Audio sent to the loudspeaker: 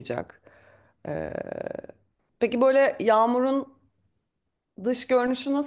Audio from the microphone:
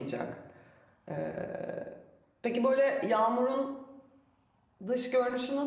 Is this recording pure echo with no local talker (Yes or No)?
Yes